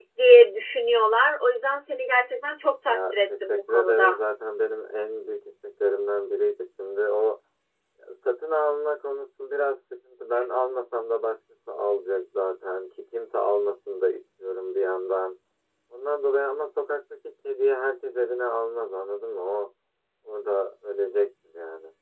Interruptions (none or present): present